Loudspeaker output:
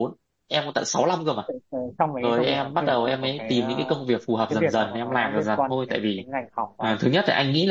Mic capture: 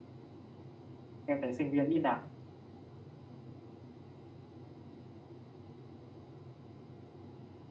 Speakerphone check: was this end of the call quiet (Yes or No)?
No